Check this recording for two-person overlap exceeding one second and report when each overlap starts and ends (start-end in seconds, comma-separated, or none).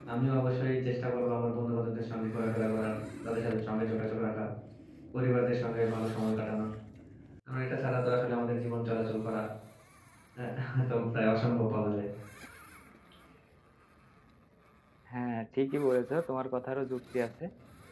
none